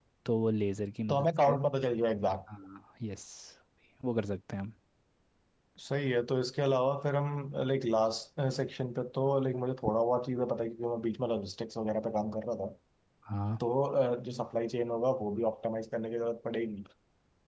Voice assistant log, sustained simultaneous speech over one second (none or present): none